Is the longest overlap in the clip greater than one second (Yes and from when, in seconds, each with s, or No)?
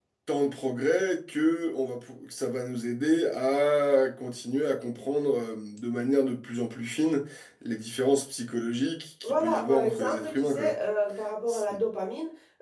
Yes, from 9.2 s